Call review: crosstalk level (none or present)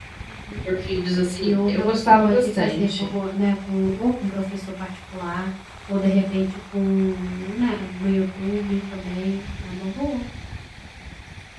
present